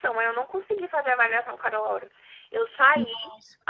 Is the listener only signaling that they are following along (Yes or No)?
Yes